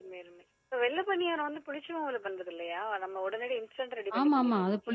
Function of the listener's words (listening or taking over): taking over